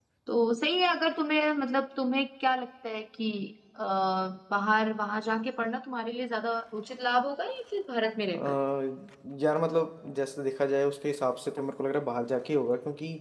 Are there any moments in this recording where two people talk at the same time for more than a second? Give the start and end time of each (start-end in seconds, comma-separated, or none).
none